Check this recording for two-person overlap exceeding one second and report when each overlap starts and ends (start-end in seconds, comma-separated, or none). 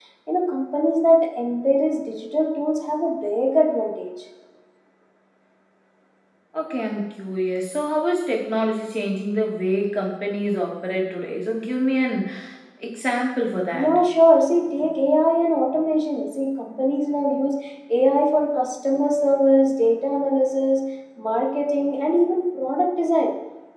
none